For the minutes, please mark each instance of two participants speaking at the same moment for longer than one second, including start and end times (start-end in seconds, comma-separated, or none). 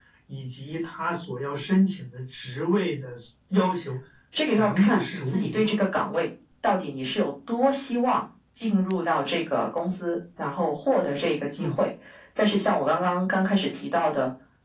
4.4-5.7